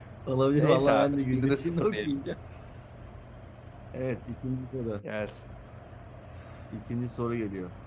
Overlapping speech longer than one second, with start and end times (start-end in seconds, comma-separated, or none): 0.6-2.2